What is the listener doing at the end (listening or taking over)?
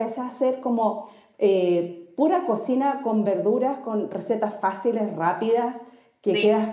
listening